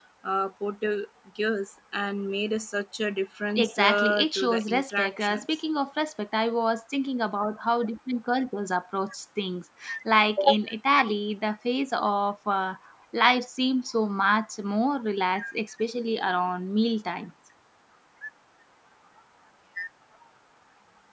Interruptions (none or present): present